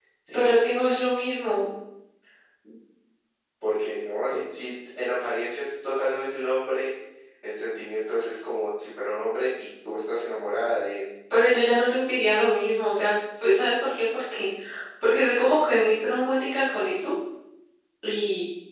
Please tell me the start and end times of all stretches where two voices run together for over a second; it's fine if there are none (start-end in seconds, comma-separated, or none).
none